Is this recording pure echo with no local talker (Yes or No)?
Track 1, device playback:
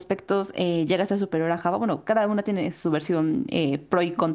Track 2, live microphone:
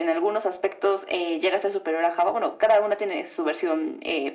Yes